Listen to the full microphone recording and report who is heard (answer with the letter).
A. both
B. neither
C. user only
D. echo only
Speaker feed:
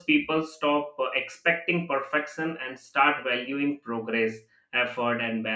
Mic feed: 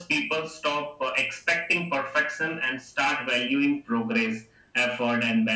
D